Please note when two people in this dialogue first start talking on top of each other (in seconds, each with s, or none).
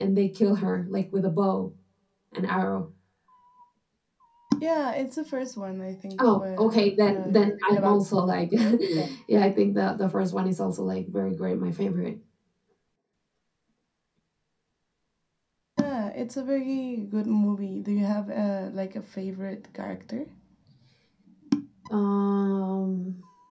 6.2 s